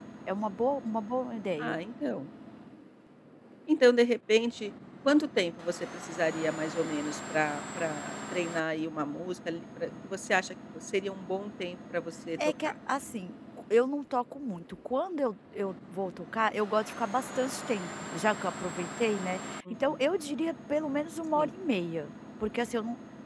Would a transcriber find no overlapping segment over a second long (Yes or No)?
Yes